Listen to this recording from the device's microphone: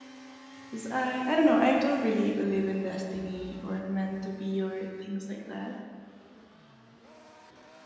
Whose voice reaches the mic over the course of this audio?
user only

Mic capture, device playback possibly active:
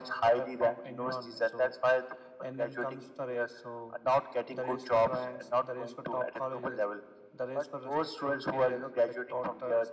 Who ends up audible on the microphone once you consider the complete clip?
echo only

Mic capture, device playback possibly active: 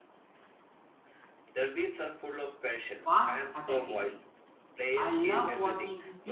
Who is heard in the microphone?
both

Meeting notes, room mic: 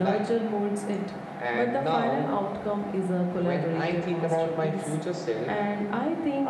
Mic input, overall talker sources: both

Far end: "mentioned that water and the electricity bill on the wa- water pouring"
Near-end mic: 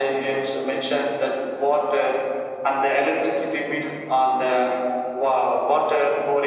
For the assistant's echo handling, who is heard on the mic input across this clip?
echo only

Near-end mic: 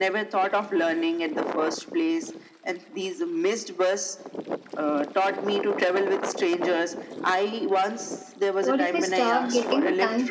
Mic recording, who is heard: both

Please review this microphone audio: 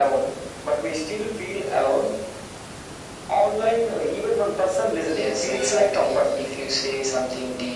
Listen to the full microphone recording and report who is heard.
echo only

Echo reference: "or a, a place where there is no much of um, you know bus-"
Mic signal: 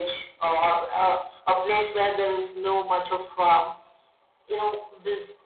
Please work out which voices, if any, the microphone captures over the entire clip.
echo only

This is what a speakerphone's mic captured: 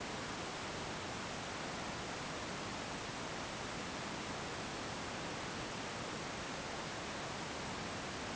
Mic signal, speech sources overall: neither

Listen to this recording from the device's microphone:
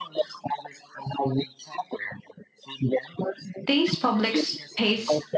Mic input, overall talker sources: both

